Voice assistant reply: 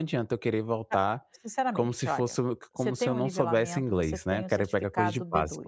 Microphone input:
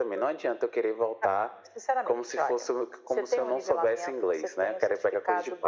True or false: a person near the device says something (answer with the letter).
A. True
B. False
B